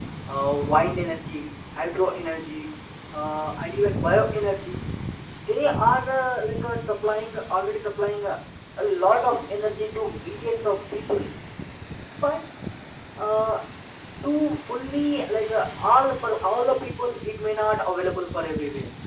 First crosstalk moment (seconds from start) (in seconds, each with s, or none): none